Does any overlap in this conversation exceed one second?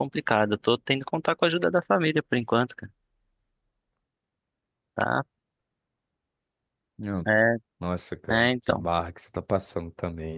No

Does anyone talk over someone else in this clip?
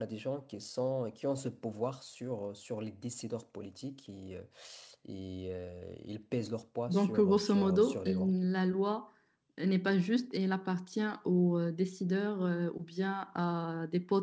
Yes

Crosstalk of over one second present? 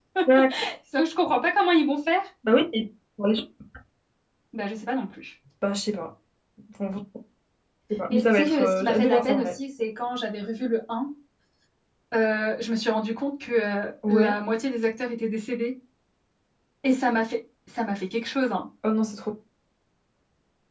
Yes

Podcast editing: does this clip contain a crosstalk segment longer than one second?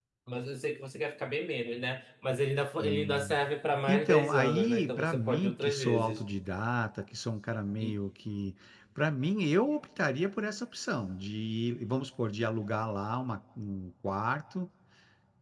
Yes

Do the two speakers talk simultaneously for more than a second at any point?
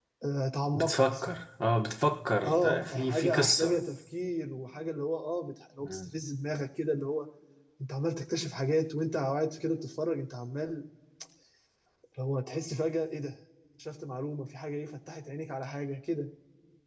Yes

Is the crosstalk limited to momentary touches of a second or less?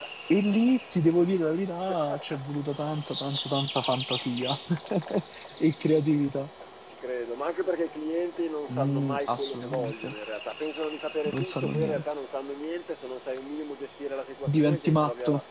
No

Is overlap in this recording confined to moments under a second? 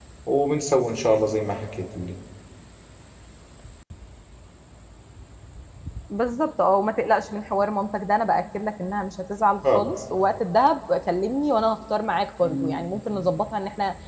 Yes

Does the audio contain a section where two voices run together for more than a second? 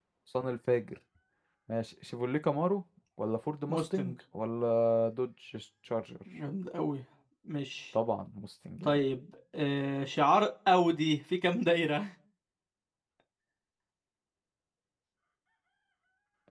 No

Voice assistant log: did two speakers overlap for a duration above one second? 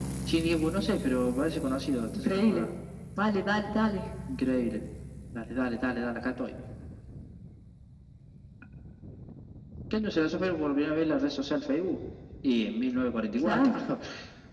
No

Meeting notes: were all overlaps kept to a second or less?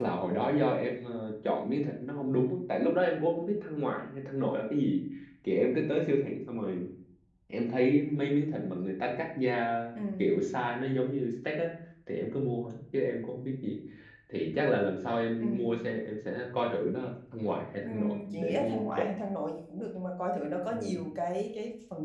No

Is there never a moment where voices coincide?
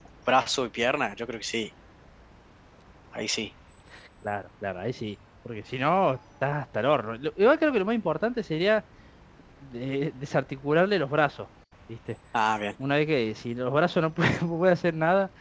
Yes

